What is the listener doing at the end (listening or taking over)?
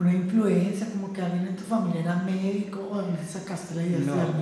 taking over